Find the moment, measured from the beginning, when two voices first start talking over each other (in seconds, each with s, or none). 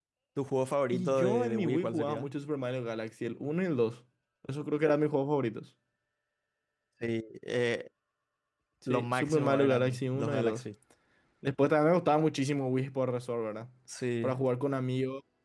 0.9 s